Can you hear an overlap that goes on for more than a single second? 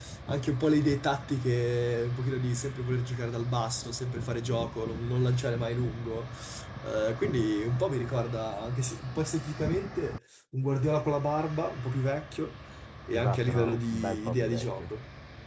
Yes, from 13.1 s

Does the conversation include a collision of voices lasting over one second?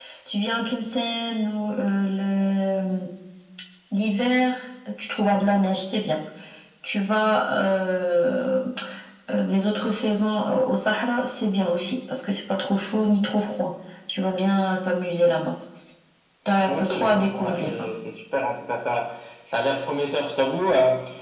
Yes, from 16.7 s

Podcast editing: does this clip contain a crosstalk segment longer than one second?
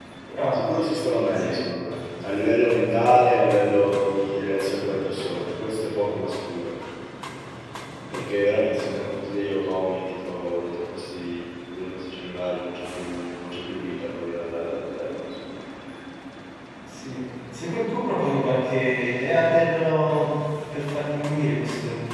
No

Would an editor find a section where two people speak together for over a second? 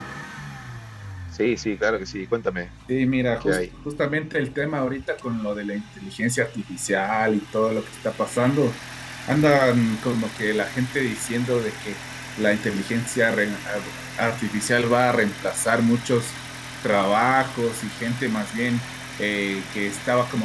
No

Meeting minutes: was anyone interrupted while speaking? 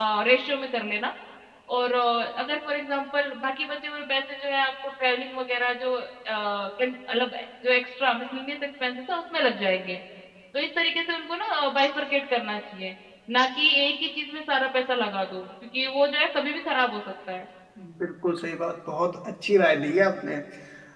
No

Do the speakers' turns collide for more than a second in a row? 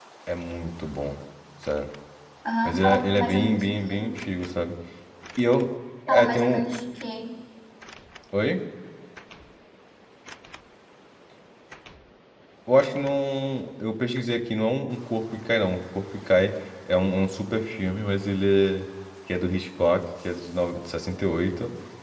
Yes, from 2.6 s

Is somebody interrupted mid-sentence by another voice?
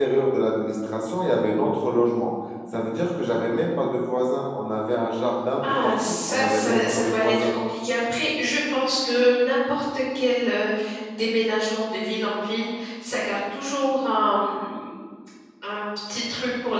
Yes, from 5.6 s

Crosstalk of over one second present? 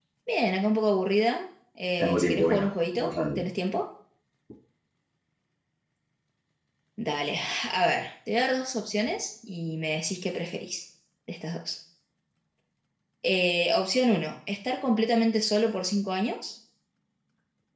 Yes, from 2.0 s

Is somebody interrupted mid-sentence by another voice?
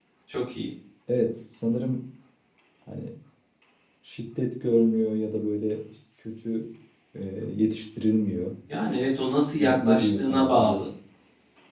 Yes, from 9.6 s

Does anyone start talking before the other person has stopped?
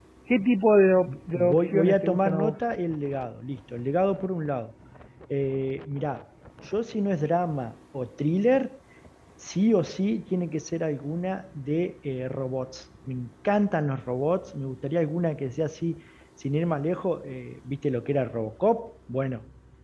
Yes, from 1.3 s

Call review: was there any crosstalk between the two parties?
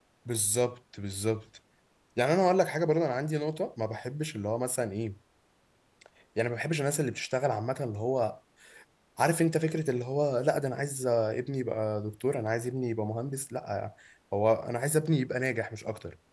No

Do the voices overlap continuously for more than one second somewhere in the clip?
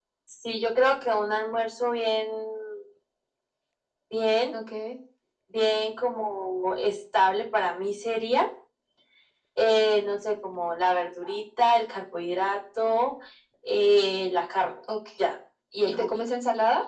No

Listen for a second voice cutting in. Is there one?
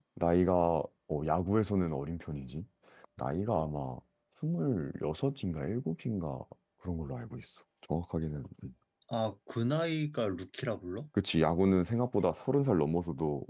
No

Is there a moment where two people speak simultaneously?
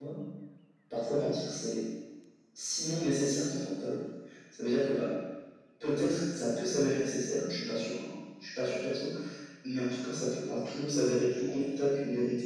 No

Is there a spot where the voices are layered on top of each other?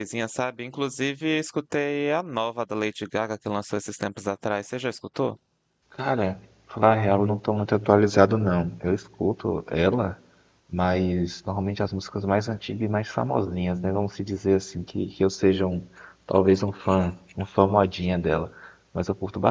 No

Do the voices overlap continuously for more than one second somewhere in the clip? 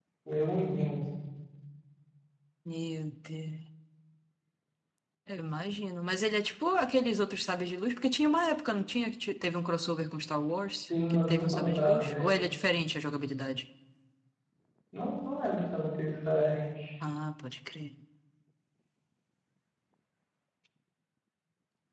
Yes, from 10.9 s

